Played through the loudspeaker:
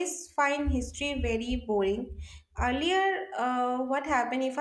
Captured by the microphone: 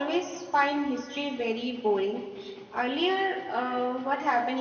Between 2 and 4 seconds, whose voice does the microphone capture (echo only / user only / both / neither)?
echo only